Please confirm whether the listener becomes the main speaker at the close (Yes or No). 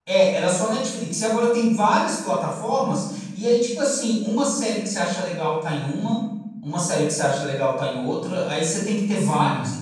No